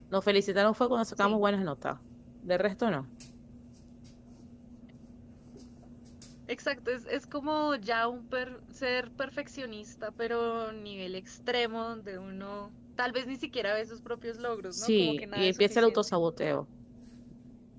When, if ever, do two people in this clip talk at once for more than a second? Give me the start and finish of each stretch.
14.7-16.0

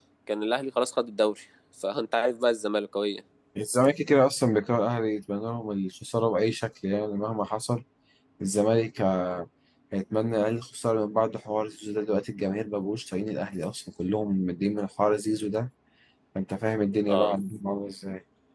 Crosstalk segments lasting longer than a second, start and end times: none

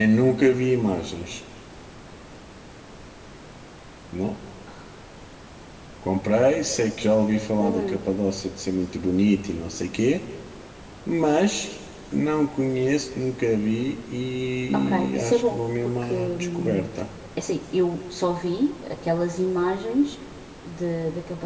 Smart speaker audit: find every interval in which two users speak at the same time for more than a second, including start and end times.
14.7-16.9

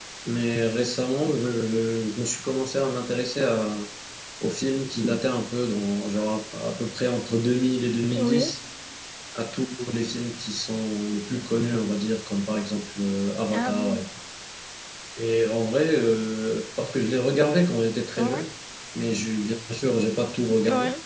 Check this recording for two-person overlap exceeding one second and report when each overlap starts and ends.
none

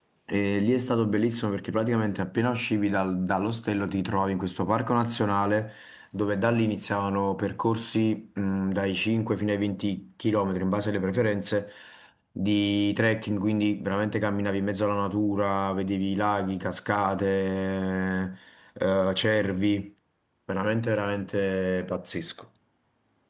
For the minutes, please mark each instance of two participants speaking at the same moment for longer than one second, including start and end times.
none

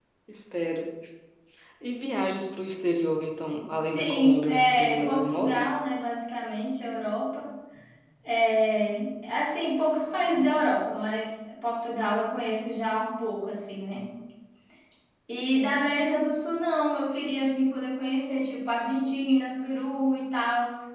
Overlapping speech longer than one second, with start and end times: 3.8-5.7

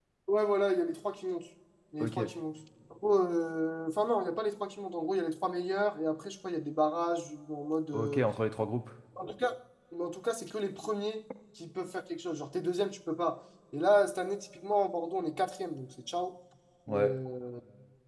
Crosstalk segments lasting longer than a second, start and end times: none

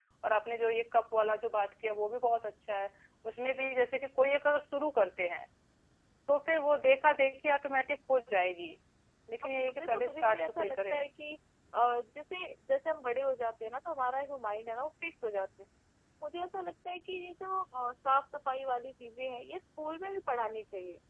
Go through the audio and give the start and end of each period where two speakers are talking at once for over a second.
9.7-11.0

